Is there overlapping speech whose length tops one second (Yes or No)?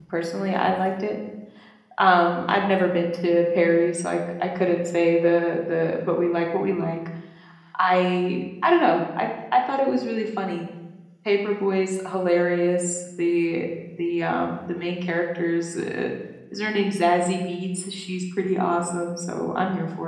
No